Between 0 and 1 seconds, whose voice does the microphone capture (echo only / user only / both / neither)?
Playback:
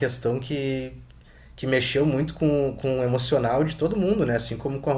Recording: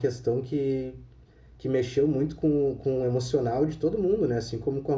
echo only